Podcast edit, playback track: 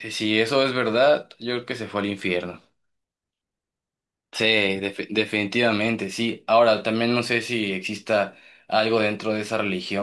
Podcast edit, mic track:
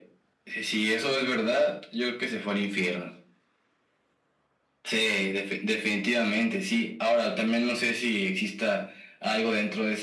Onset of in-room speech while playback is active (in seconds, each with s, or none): none